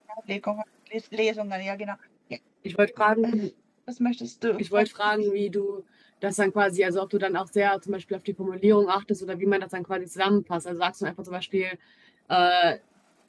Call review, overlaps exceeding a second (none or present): none